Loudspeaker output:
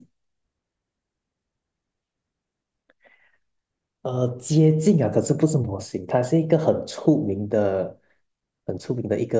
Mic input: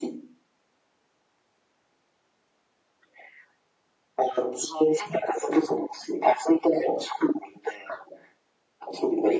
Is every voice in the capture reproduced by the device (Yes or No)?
Yes